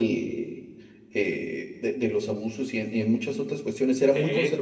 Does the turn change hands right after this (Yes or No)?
No